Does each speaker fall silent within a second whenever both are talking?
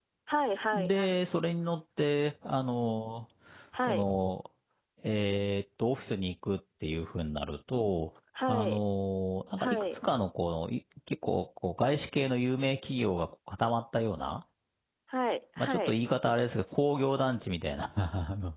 Yes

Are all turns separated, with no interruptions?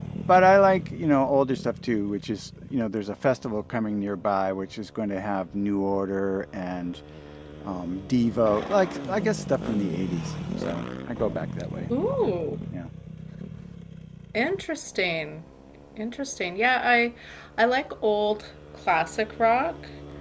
Yes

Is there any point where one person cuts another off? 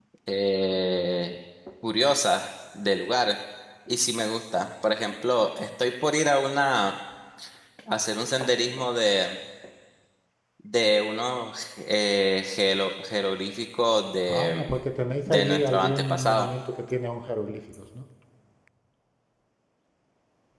Yes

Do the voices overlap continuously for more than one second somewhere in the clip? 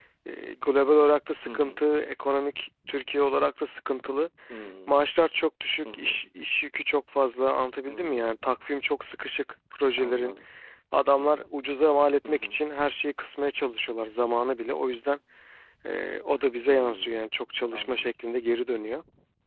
No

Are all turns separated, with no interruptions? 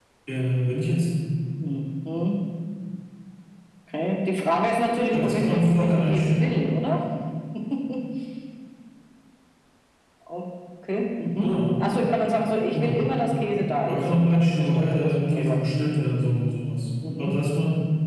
No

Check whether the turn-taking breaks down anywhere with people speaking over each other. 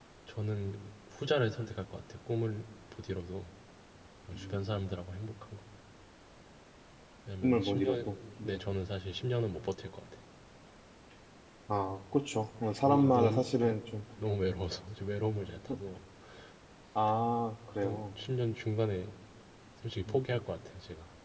Yes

